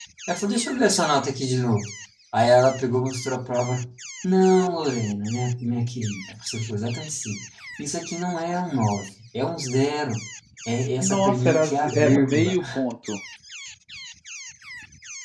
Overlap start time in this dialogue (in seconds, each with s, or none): 11.0 s